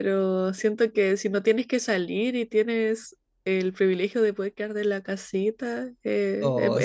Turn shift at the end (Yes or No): Yes